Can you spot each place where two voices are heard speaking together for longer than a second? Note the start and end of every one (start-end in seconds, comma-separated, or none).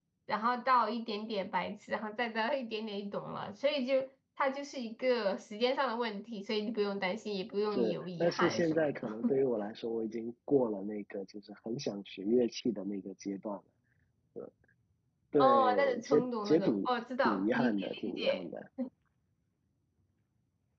7.7-9.2, 15.4-16.8, 17.2-18.5